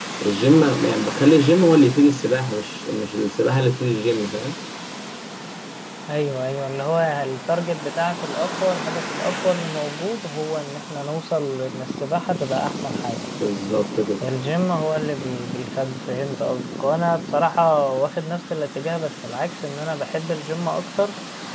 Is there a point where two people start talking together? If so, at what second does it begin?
none

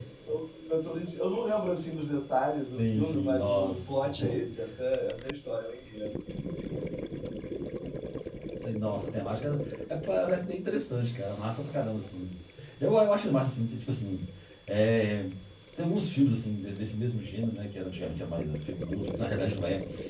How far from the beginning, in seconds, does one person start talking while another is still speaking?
2.8 s

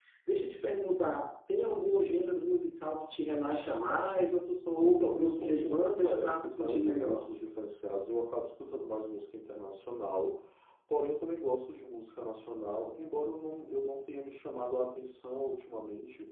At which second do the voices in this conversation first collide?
4.8 s

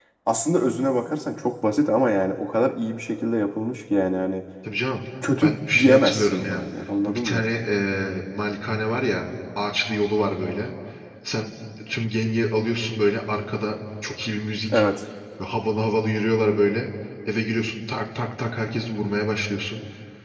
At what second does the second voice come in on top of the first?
5.4 s

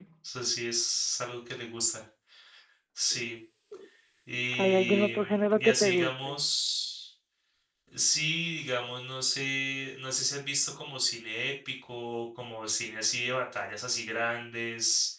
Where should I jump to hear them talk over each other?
4.5 s

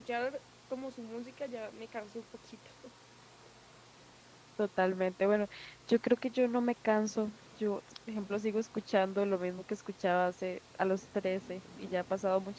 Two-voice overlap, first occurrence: none

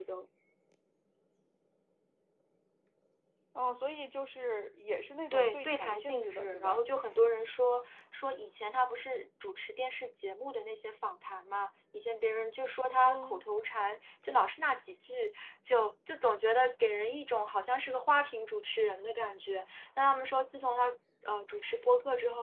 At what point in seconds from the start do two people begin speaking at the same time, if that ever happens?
5.3 s

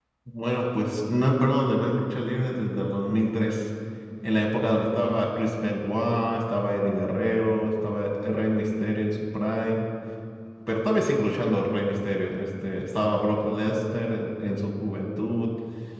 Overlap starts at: none

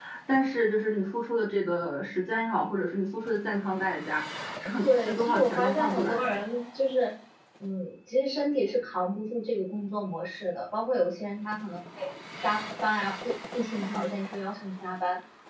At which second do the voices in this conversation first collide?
4.8 s

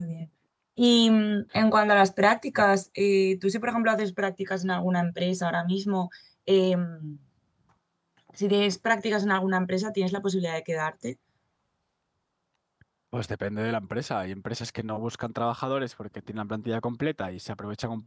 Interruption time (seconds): none

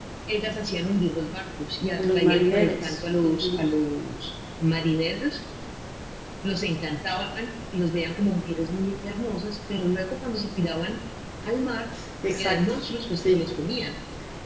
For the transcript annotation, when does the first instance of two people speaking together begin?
2.0 s

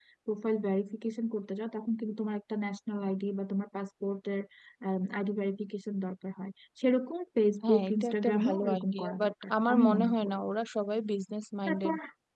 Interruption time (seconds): 7.6 s

